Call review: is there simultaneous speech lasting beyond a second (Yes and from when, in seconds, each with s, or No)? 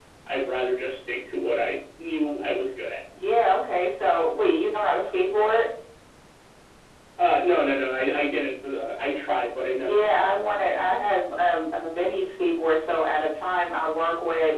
No